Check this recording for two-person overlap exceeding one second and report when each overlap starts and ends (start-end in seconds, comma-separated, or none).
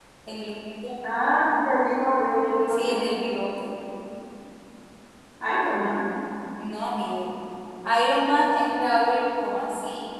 none